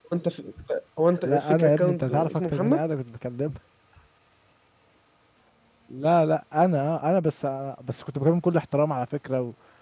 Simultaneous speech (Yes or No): Yes